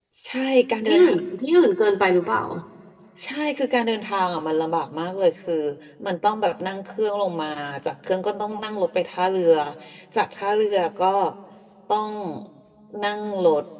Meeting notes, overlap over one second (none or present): none